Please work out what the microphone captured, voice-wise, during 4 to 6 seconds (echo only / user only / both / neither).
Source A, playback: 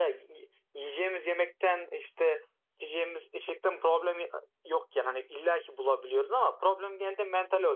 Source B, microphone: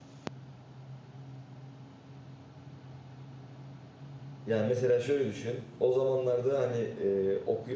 user only